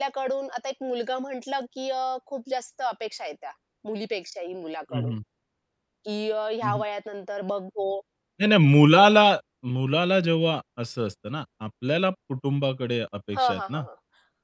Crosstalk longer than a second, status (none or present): none